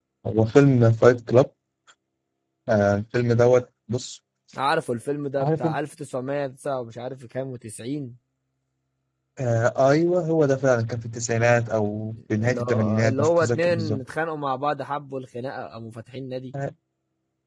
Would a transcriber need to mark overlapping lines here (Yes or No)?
Yes